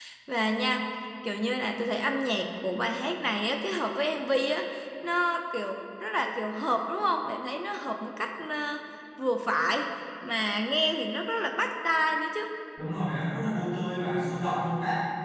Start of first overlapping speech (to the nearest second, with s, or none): none